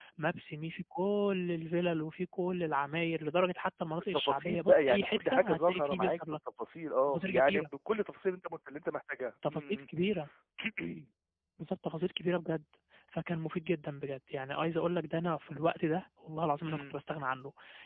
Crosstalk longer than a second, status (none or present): present